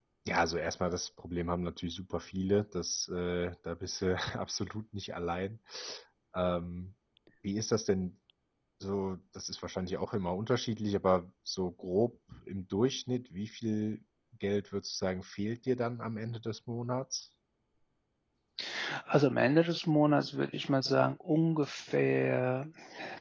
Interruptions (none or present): none